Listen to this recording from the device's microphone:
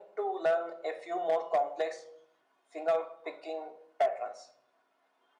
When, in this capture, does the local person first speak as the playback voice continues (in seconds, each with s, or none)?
none